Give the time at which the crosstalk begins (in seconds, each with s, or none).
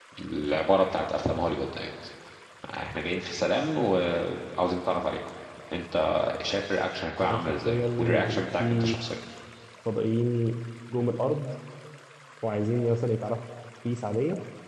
7.2 s